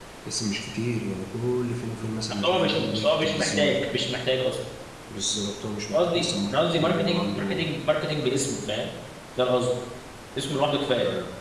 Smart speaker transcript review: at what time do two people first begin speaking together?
2.4 s

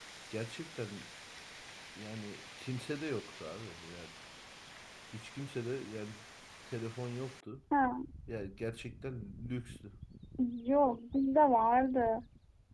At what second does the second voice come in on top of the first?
none

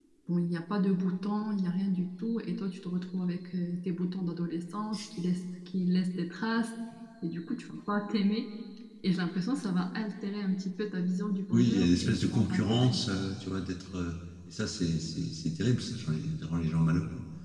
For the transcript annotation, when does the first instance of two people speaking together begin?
11.5 s

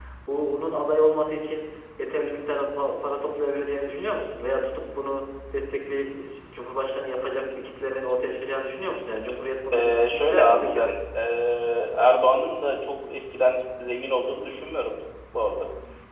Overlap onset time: 9.7 s

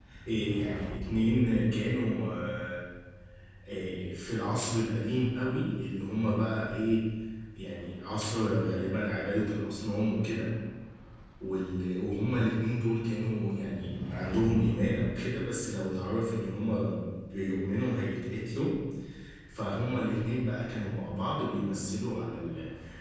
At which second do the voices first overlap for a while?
none

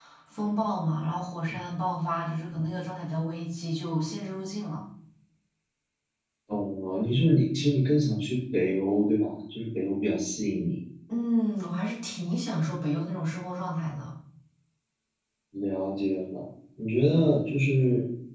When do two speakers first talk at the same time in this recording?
none

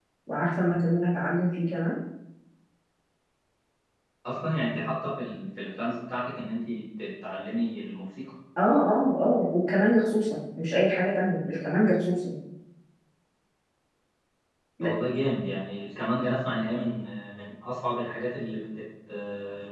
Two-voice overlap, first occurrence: none

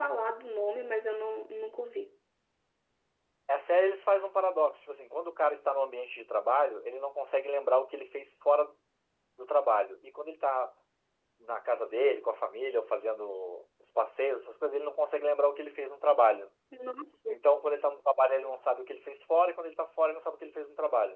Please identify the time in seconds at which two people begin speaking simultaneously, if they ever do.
none

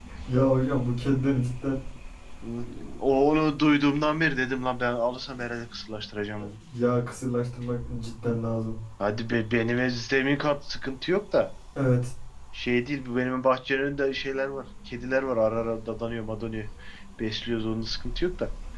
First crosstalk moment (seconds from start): none

